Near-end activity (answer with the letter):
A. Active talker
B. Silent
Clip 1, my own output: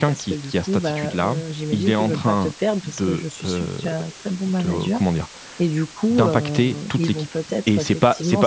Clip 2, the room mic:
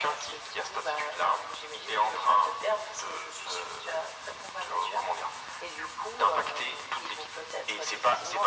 B